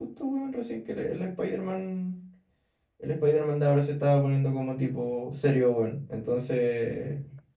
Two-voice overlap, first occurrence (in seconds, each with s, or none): none